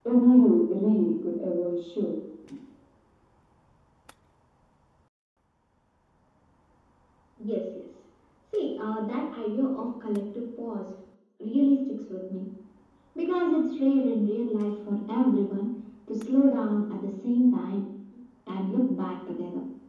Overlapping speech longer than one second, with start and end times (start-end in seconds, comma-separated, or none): none